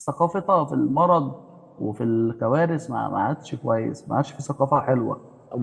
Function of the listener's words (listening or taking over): taking over